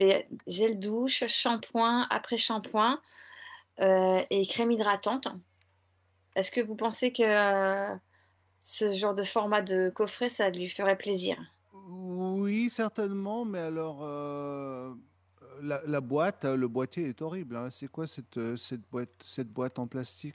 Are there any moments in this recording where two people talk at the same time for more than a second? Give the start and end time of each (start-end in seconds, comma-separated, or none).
none